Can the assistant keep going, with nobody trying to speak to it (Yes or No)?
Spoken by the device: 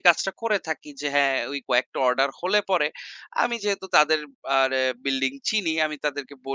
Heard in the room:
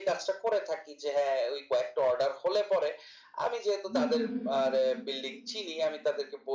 No